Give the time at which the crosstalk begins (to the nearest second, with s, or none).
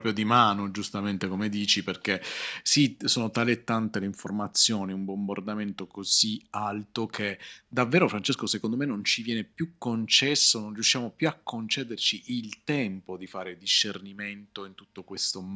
none